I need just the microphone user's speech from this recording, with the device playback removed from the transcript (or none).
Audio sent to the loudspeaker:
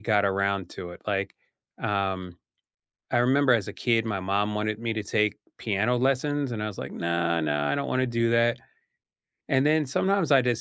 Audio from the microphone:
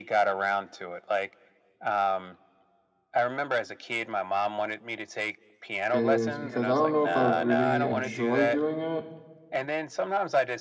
is because I don't know if I would really enjoy doing it